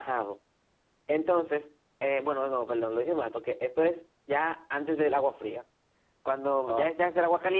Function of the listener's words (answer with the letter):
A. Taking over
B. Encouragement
B